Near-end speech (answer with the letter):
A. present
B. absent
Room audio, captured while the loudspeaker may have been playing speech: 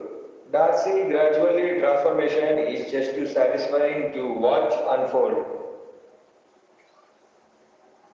B